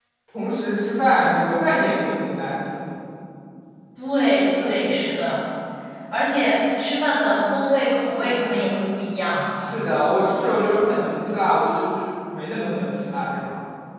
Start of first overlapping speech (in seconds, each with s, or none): none